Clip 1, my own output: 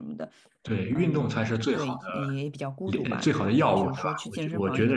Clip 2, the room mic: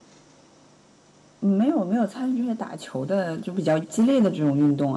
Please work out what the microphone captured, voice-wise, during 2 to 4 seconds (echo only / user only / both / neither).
user only